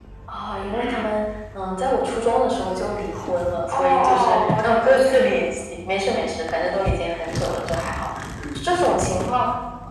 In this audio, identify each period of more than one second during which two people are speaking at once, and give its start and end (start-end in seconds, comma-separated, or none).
3.7-5.4